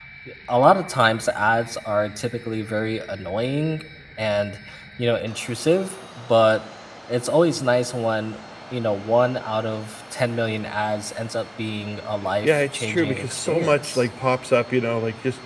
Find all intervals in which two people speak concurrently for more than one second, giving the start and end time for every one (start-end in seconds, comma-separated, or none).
12.4-14.1